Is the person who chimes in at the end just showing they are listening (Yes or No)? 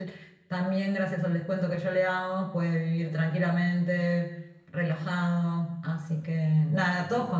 Yes